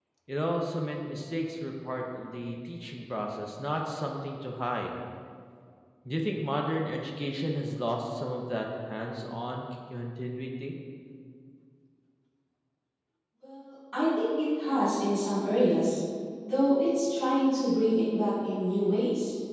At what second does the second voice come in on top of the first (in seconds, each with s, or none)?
none